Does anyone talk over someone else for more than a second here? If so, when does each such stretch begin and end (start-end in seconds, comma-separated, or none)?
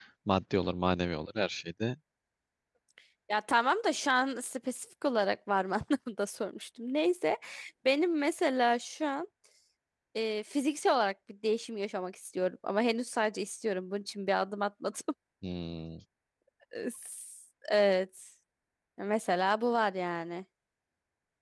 none